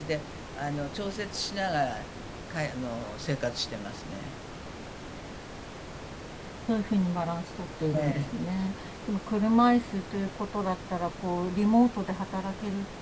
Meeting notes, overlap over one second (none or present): none